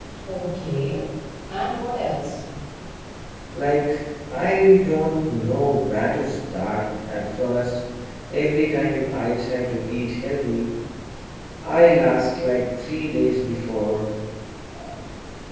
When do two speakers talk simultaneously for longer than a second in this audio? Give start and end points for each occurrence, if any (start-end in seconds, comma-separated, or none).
none